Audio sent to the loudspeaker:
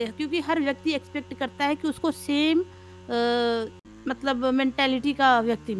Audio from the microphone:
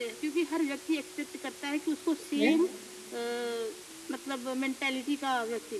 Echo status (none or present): present